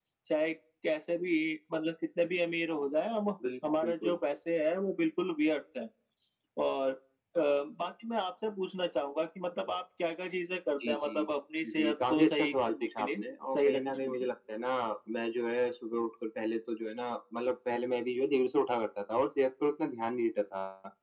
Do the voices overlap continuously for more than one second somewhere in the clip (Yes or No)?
Yes